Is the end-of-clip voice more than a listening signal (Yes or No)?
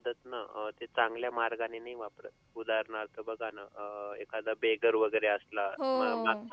No